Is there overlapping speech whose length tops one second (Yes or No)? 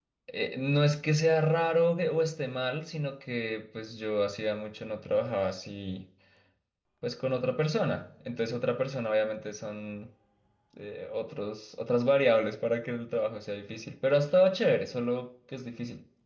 No